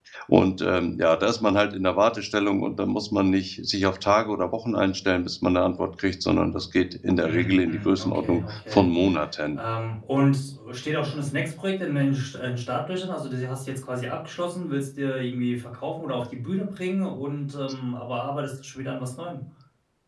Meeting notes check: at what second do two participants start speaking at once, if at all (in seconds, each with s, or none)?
7.2 s